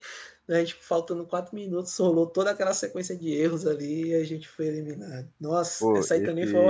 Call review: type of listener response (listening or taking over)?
taking over